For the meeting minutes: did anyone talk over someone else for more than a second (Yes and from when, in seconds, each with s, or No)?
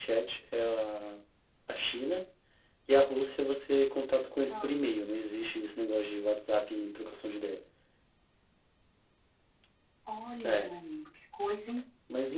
No